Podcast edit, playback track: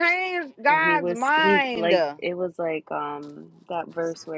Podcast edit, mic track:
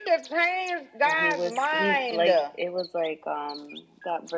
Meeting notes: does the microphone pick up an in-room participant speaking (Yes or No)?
No